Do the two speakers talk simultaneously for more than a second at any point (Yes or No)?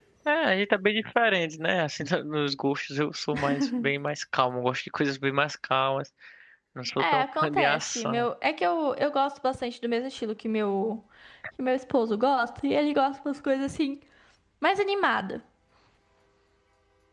Yes